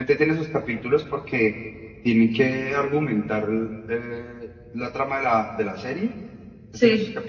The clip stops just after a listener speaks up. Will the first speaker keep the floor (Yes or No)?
Yes